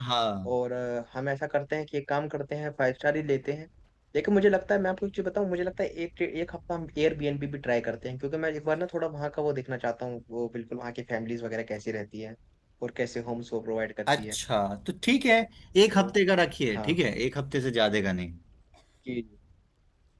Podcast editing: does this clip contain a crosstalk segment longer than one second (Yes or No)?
No